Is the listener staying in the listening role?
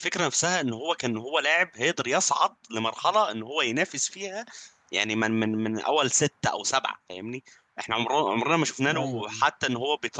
Yes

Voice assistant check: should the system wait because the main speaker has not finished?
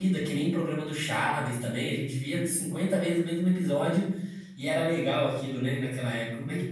No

